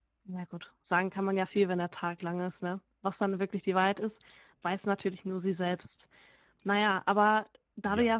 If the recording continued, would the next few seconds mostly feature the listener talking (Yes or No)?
No